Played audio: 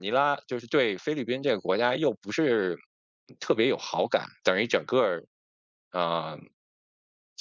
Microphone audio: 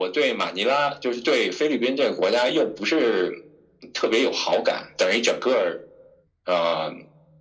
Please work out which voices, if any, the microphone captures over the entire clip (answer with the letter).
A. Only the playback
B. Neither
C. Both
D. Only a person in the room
A